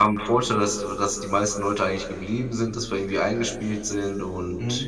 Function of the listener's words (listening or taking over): taking over